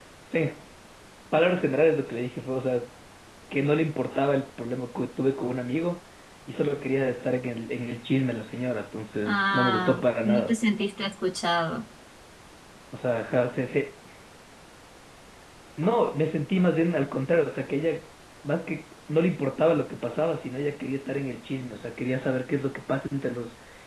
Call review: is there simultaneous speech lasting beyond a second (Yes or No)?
Yes